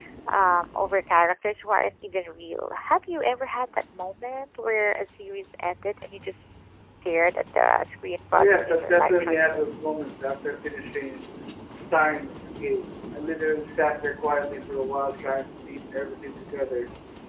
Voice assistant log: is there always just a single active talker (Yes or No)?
No